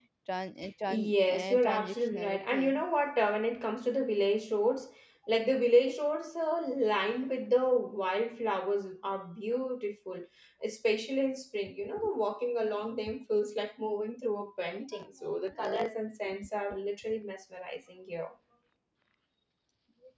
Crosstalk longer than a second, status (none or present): present